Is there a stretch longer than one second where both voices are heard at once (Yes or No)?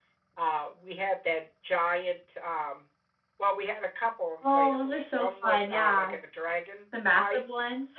Yes